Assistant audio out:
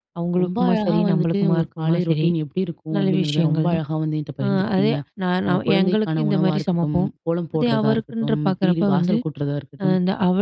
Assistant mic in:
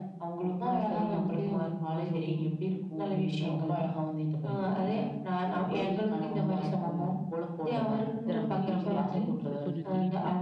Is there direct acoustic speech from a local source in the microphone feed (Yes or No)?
Yes